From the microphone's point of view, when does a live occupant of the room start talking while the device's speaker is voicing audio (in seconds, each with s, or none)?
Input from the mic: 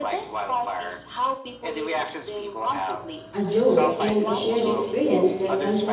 3.3 s